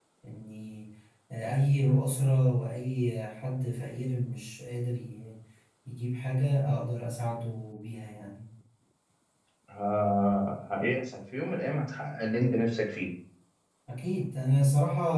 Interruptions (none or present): none